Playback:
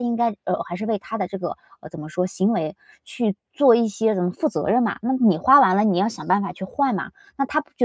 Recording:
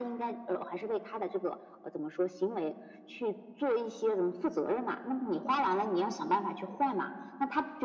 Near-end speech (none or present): none